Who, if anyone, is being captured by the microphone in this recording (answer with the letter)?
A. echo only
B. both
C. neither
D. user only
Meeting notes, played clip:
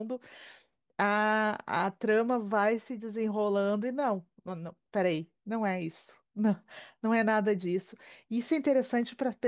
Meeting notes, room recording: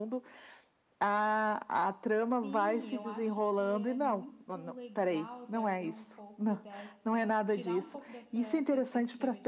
B